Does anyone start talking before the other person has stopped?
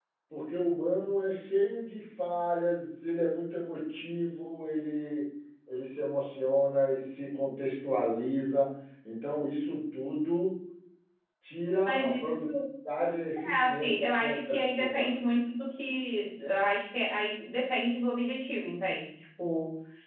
Yes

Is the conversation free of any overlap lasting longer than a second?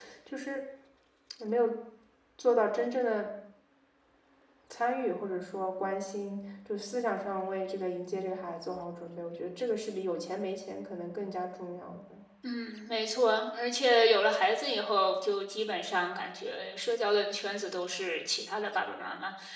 Yes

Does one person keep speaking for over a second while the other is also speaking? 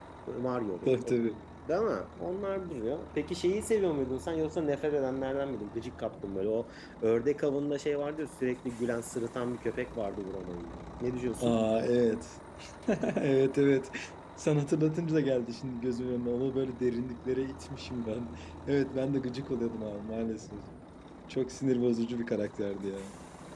No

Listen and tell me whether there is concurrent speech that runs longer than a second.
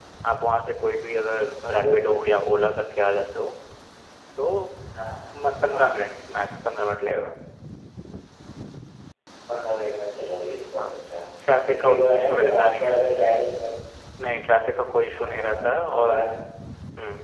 Yes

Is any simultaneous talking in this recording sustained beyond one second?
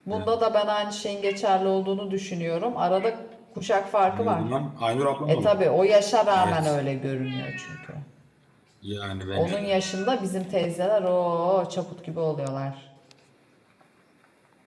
No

